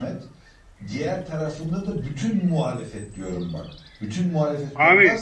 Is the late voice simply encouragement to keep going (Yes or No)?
Yes